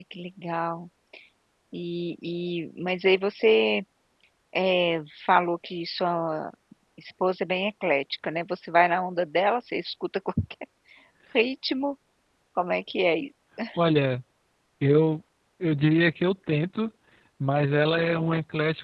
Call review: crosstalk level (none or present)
none